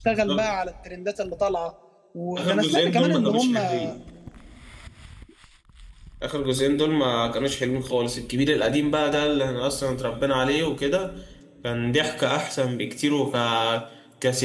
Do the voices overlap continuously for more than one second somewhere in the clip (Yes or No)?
Yes